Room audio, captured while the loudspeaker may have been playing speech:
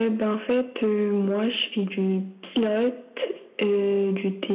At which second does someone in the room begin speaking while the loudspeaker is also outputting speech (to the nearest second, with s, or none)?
none